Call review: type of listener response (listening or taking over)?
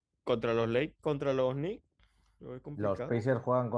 taking over